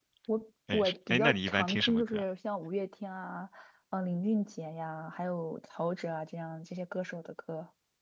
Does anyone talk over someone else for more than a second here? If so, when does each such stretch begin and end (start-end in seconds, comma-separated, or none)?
0.7-2.2